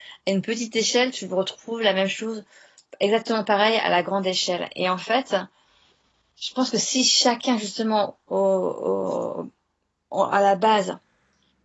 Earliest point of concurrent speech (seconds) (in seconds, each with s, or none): none